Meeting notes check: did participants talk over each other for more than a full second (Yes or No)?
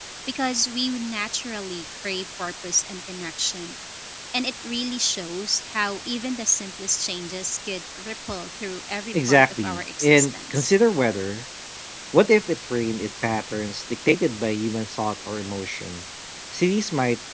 Yes